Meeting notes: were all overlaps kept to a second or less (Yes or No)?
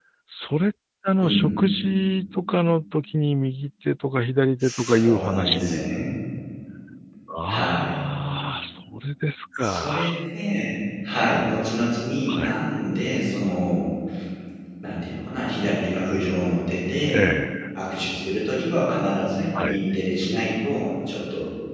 No